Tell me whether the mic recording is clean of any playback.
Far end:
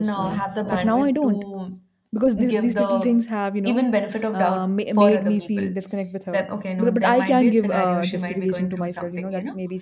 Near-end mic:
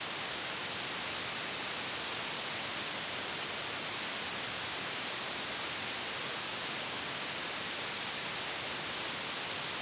Yes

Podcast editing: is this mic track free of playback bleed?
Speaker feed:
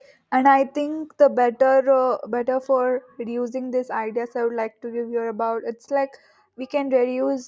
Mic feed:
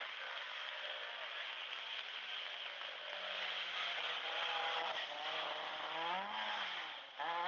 Yes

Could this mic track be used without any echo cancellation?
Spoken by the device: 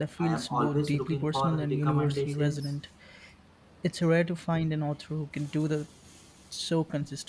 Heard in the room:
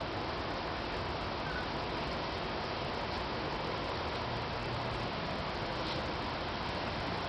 Yes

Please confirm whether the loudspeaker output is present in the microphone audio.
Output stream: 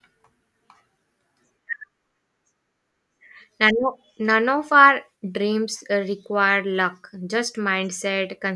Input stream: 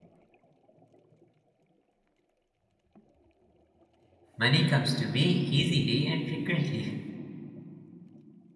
No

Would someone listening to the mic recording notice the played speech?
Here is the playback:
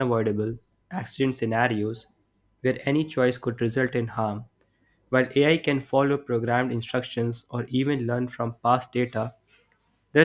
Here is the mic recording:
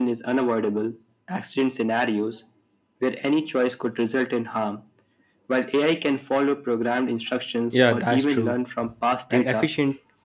Yes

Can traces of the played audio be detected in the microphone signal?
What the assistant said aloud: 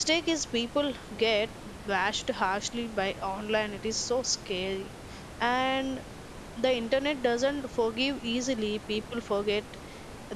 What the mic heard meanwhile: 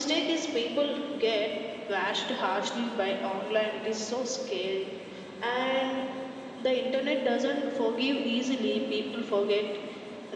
Yes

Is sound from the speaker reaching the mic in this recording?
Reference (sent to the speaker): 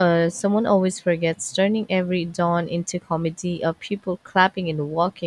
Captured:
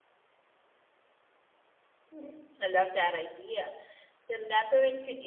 No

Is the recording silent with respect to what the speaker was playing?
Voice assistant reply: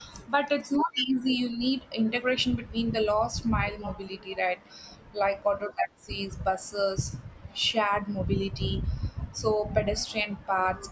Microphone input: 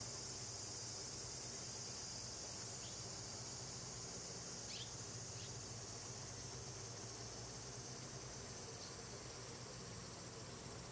Yes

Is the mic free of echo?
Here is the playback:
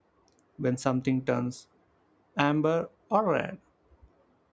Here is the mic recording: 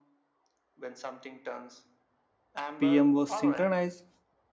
No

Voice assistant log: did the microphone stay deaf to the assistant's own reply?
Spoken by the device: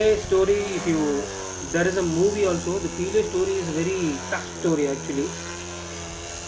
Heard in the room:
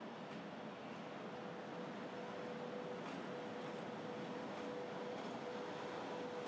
Yes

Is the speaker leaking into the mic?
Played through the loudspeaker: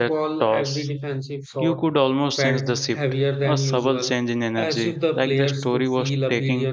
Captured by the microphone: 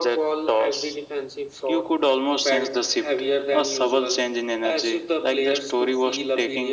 Yes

